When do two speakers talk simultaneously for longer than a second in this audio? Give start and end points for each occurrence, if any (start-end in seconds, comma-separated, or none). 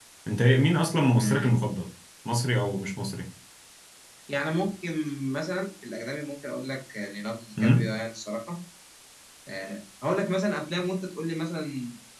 none